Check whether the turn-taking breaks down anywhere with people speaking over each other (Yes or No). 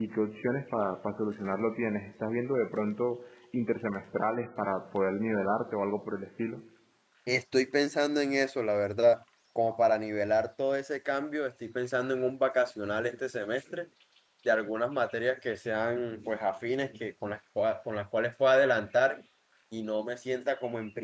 No